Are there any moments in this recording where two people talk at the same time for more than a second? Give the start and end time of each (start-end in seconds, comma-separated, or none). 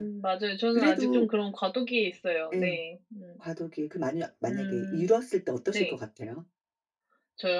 none